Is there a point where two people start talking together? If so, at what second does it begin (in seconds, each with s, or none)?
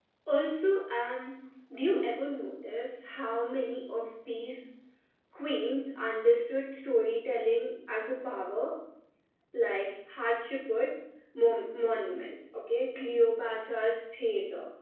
none